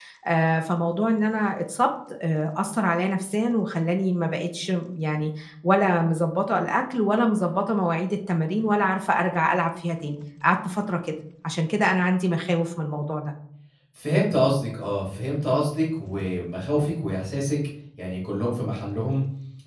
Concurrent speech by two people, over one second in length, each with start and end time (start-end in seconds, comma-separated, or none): none